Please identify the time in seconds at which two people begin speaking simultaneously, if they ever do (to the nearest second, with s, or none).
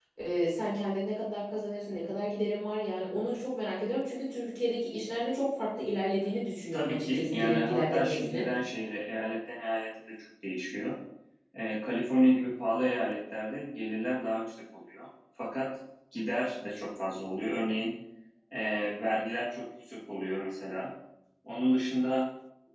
7 s